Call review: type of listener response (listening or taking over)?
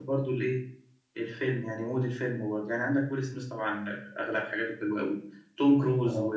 listening